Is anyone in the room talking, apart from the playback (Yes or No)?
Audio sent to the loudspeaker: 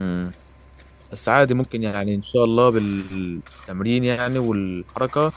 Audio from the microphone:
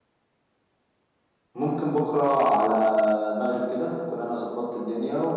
Yes